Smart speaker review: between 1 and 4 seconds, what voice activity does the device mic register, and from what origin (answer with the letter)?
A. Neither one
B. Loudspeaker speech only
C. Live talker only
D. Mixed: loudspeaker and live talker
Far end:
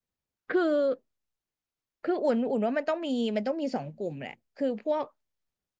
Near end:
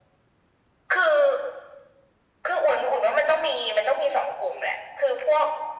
B